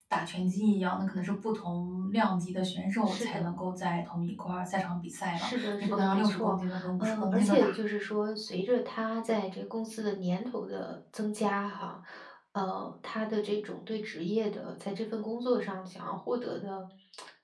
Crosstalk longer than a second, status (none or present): present